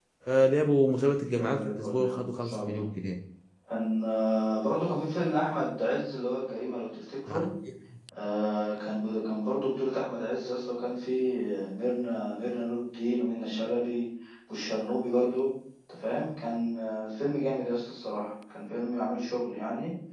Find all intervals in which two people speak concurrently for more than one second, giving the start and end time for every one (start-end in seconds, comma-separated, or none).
1.4-2.8